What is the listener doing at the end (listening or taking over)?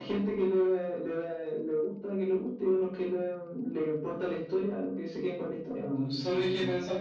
taking over